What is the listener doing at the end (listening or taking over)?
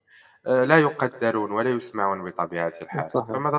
taking over